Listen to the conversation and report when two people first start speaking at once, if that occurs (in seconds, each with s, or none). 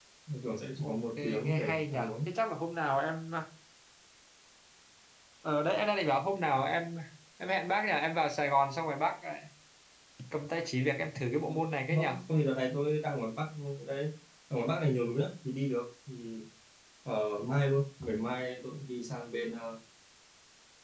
0.8 s